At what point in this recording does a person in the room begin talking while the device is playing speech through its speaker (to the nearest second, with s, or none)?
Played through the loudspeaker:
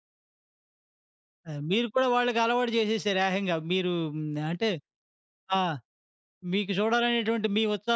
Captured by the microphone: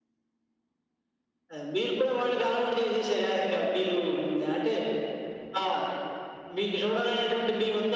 none